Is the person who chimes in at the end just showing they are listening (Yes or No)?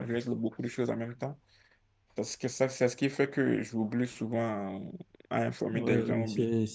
No